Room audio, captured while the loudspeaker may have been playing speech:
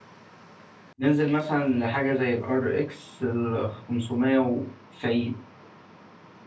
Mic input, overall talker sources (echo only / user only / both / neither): user only